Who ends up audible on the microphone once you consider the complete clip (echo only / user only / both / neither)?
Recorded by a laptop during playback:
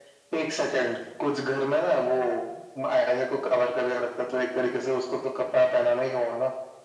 echo only